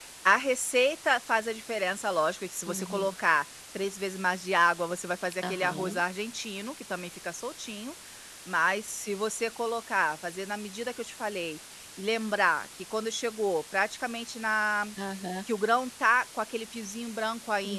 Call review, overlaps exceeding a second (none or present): none